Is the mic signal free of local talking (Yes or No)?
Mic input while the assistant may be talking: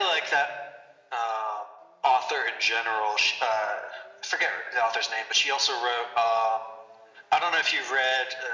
Yes